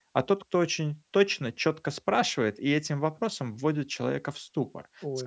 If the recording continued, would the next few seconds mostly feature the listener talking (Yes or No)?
No